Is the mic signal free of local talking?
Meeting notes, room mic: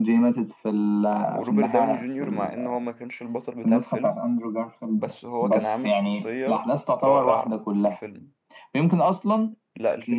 No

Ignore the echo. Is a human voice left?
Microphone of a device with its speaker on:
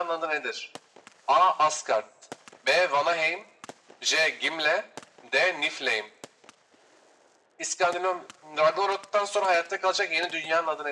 No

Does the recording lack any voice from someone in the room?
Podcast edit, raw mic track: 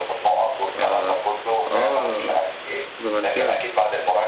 No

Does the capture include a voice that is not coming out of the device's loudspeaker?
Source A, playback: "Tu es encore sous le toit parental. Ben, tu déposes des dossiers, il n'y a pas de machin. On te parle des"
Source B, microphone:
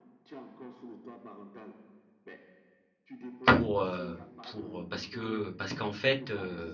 Yes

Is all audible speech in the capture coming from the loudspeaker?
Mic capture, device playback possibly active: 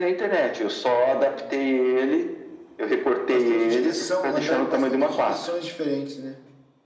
Yes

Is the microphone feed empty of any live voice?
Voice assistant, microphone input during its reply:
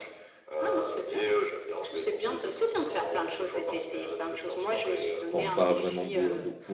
No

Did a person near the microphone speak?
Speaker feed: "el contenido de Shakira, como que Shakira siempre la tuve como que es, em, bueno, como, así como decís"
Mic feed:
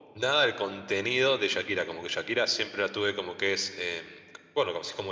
No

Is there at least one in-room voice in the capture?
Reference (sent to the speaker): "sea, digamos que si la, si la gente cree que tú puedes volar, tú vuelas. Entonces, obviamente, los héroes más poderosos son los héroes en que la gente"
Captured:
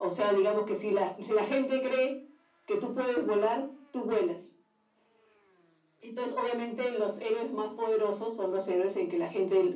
No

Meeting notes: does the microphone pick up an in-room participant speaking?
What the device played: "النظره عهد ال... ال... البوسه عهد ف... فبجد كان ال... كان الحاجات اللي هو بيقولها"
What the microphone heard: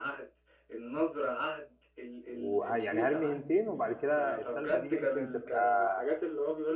Yes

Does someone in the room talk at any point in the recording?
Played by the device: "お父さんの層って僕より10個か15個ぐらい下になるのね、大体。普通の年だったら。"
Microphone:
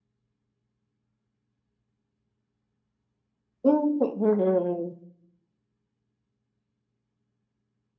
Yes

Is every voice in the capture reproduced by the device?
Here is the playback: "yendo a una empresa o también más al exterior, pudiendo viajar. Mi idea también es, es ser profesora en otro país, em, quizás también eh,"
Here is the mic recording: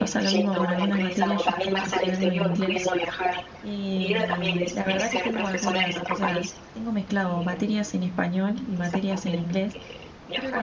No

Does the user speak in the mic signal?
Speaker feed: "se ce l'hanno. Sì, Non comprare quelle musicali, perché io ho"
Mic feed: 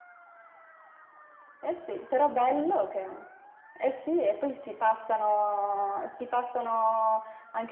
Yes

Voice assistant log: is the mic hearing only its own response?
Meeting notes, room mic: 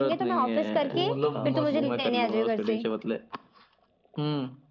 No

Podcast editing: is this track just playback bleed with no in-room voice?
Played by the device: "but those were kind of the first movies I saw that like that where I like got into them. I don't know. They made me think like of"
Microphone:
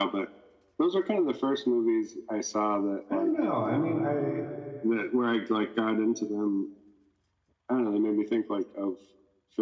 No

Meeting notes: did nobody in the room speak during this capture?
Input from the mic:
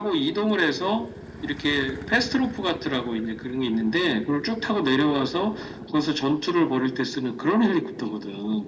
Yes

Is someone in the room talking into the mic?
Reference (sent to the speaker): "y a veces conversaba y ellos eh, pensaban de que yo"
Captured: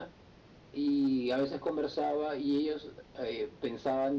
No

